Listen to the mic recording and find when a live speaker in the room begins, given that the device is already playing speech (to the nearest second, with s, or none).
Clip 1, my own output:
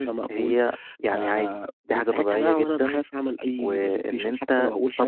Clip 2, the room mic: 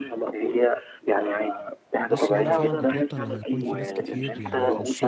2 s